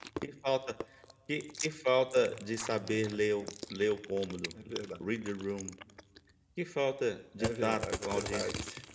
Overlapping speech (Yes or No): Yes